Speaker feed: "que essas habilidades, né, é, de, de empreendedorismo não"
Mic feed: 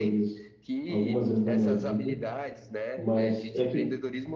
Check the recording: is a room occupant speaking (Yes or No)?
Yes